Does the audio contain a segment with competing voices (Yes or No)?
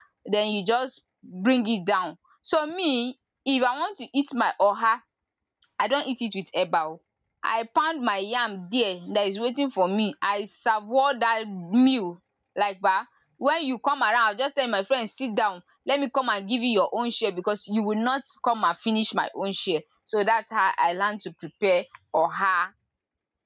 No